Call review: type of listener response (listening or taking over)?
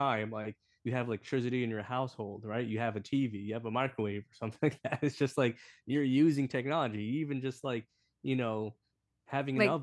listening